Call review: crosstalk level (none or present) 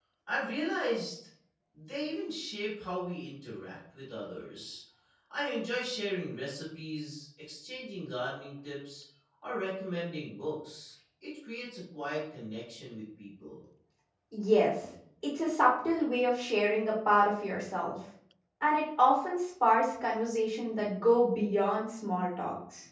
none